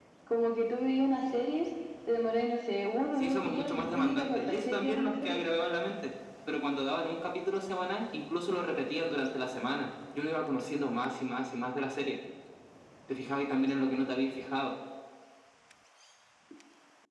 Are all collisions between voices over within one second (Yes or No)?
No